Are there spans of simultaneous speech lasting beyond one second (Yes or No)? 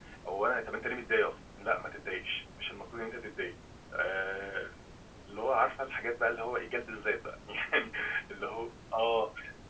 No